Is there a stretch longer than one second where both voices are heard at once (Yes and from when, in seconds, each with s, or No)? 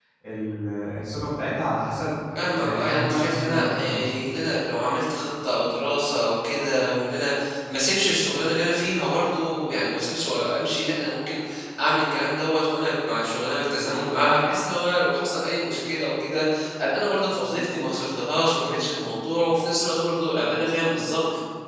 Yes, from 2.6 s